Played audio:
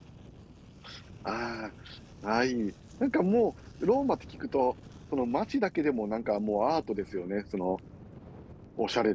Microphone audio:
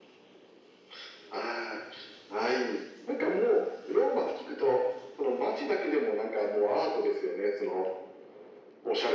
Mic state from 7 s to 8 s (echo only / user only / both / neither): echo only